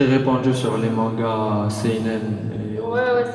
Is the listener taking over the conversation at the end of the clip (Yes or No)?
Yes